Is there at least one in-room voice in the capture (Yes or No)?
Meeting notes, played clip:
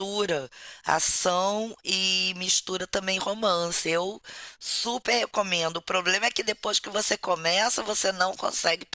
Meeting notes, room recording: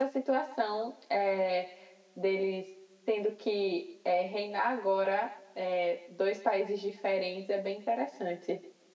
Yes